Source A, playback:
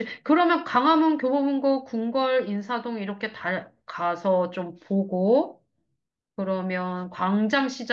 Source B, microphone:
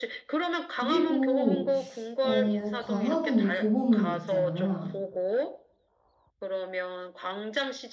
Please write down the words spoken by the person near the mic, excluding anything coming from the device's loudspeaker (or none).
그리고 어, 광화문에 교보문고 있잖아.